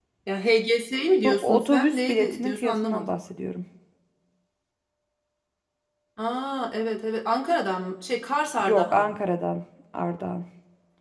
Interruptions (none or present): present